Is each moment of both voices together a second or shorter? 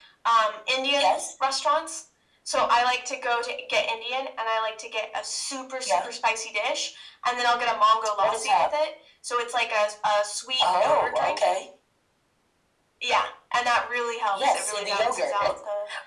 No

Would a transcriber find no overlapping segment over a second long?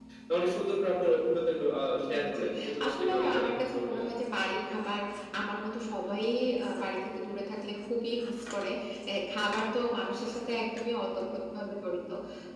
No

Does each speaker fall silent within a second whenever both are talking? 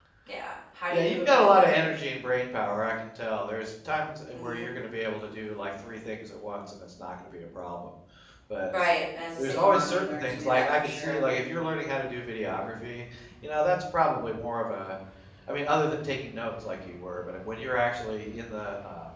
No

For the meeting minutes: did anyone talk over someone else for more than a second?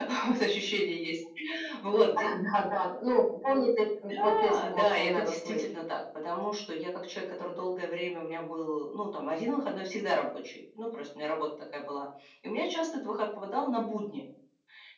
Yes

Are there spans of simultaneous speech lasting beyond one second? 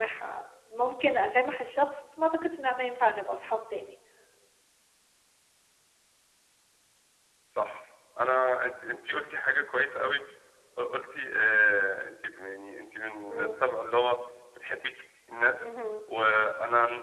No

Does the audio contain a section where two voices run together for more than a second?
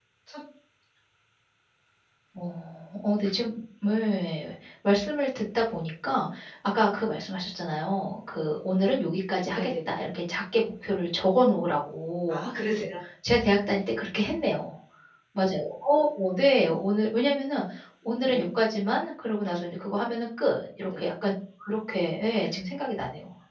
No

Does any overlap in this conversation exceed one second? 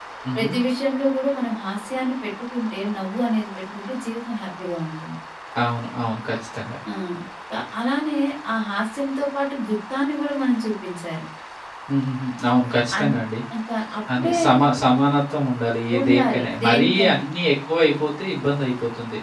Yes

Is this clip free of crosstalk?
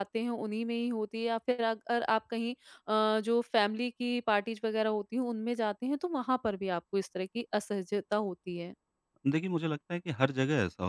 Yes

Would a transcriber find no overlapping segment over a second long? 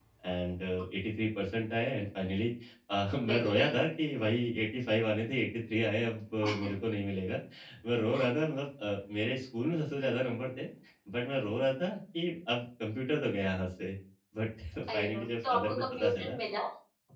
No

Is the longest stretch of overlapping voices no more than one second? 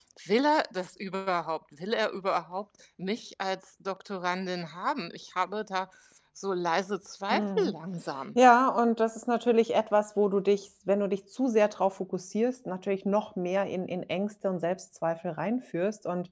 Yes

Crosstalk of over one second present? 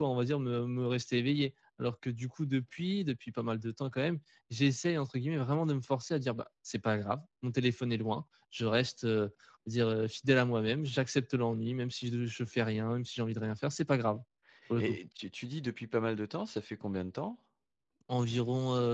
No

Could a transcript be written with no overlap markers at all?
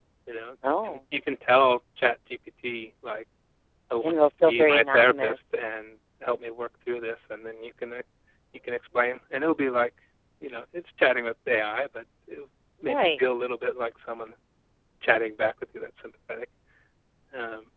No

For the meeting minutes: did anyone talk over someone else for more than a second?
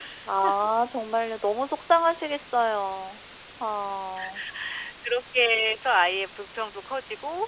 No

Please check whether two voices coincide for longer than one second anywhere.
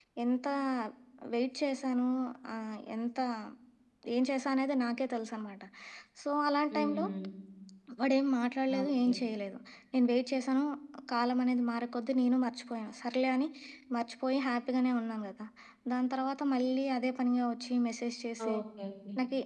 No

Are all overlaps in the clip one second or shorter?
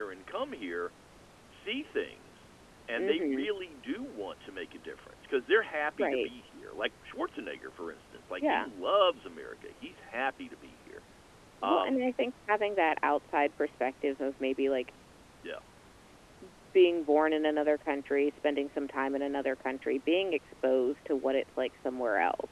Yes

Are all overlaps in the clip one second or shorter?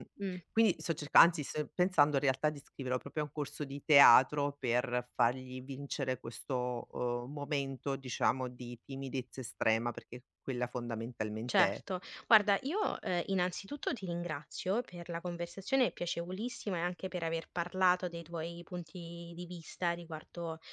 Yes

